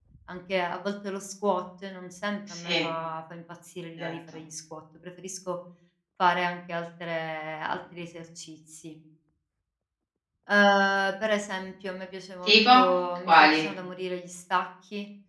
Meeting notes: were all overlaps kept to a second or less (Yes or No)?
Yes